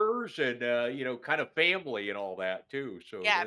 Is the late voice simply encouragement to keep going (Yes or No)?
No